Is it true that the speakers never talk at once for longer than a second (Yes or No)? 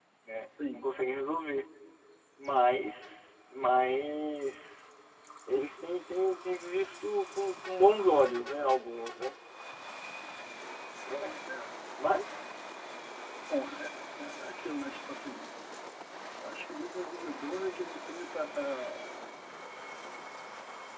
Yes